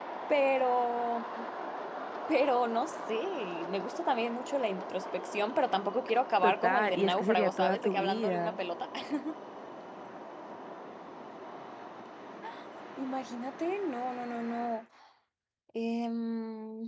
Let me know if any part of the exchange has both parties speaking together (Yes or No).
Yes